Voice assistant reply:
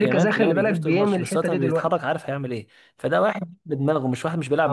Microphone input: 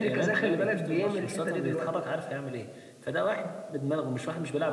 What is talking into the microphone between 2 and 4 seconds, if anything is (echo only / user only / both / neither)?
echo only